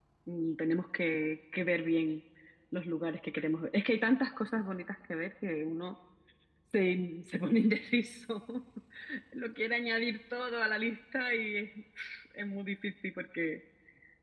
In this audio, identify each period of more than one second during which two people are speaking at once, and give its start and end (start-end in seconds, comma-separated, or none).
none